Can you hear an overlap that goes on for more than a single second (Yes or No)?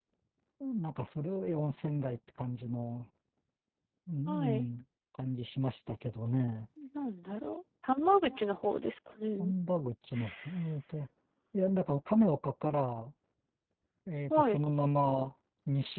No